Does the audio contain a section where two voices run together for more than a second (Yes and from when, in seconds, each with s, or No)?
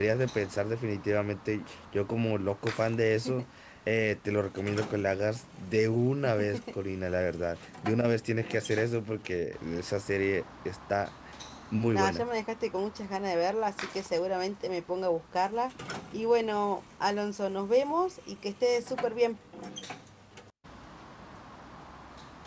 No